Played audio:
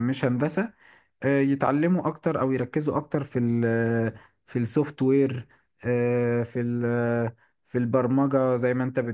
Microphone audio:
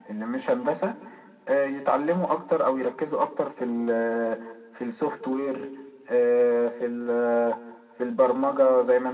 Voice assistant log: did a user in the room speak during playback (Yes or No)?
No